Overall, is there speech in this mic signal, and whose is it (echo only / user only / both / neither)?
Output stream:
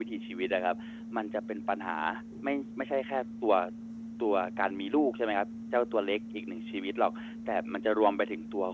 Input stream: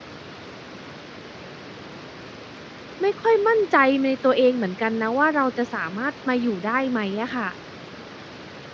user only